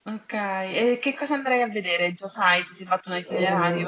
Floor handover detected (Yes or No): Yes